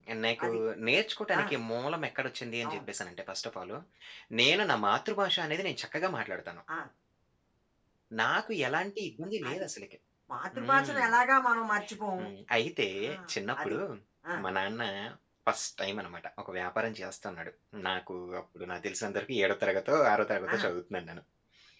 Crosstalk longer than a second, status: none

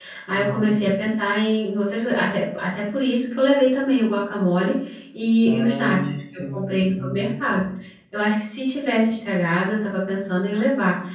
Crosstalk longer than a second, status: present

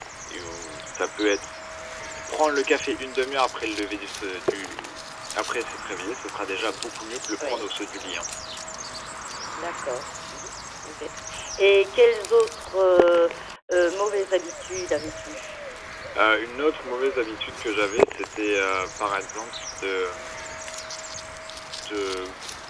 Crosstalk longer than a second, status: none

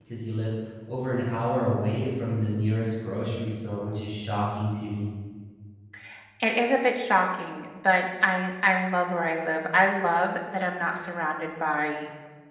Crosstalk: none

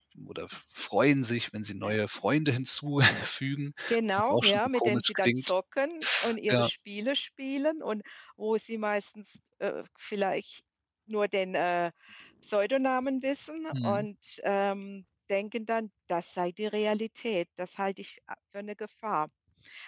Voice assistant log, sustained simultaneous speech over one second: present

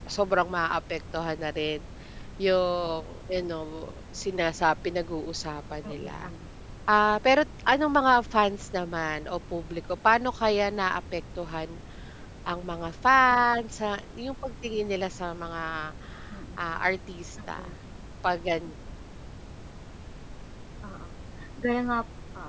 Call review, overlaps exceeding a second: none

